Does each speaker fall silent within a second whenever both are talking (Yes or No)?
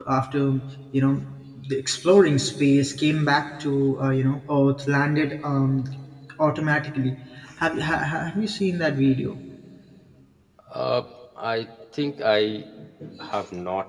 Yes